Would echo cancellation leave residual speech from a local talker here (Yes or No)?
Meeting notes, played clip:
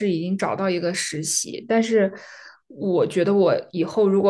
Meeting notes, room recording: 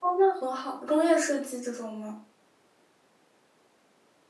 Yes